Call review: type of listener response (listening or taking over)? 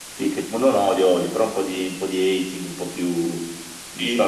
taking over